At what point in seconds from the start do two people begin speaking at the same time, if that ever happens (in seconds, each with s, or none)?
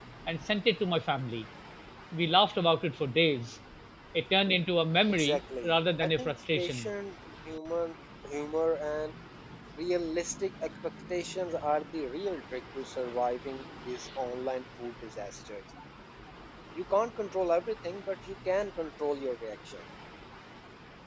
5.1 s